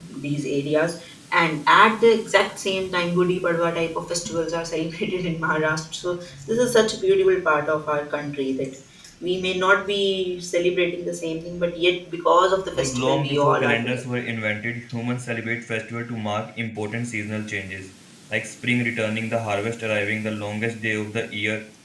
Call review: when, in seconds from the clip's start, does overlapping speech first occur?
12.8 s

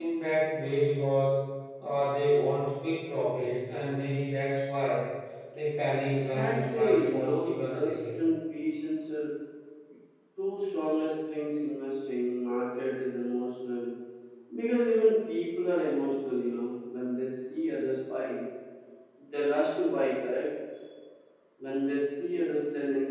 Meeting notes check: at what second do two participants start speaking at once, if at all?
6.2 s

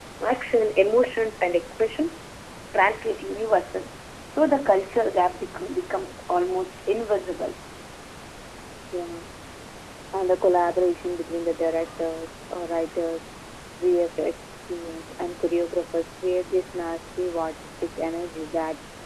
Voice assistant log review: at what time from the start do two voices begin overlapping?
none

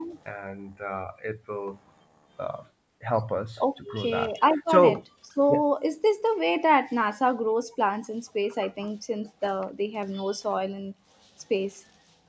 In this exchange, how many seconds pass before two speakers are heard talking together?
3.6 s

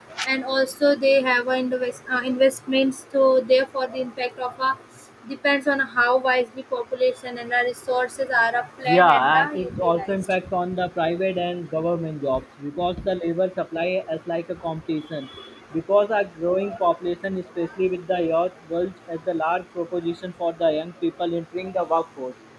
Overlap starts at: 8.8 s

